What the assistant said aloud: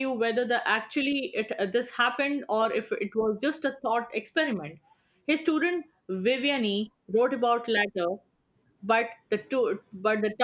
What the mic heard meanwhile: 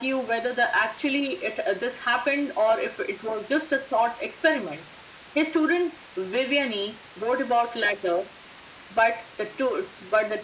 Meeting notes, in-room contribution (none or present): none